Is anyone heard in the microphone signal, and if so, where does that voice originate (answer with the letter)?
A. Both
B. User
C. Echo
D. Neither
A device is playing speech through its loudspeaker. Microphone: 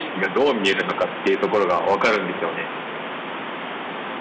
C